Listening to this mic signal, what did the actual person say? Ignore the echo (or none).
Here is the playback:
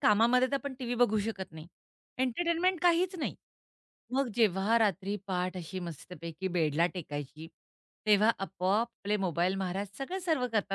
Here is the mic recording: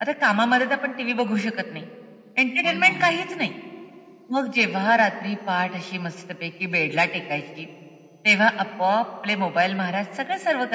हो ना.